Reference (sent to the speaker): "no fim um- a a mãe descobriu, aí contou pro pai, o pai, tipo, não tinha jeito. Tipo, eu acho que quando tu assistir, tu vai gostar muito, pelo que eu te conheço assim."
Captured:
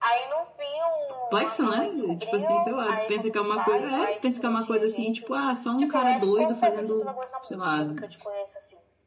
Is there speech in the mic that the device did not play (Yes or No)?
Yes